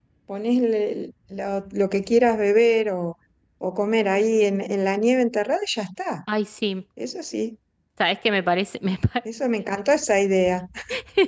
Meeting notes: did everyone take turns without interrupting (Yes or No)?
Yes